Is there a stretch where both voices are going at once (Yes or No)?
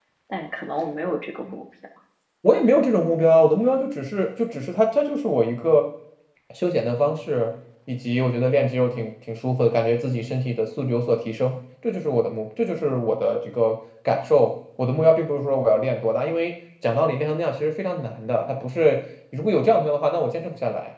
No